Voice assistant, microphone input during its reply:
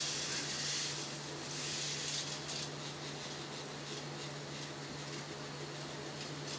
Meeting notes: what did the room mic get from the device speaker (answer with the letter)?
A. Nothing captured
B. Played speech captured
A